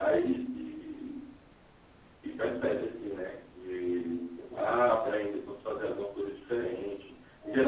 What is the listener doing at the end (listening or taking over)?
listening